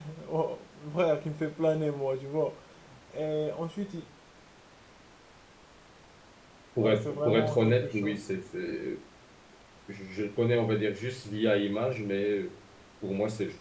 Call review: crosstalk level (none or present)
present